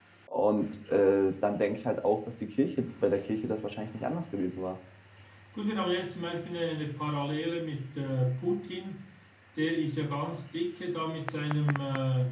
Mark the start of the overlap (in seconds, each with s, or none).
none